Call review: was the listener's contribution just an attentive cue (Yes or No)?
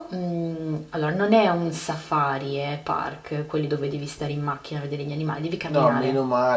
No